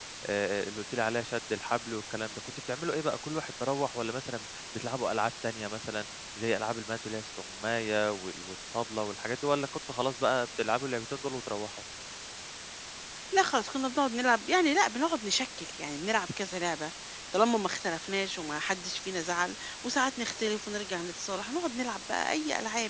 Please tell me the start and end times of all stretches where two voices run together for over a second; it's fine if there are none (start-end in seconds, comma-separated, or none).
none